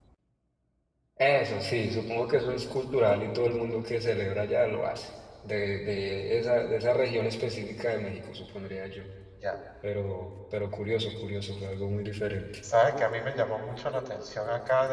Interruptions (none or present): none